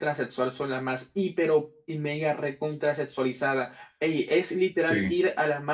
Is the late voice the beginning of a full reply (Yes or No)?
No